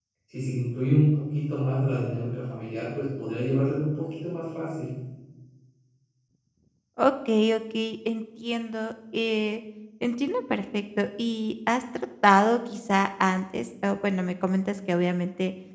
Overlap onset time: none

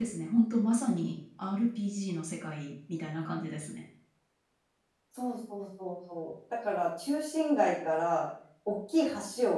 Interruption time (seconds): none

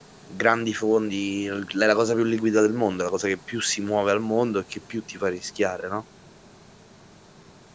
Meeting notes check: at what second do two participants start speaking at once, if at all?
none

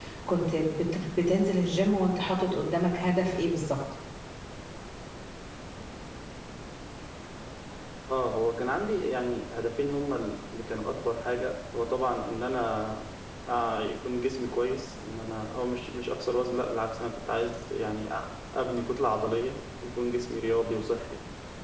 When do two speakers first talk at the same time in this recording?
none

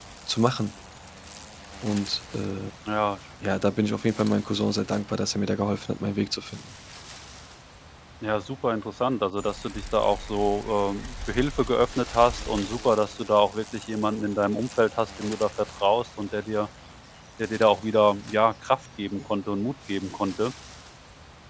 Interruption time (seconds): none

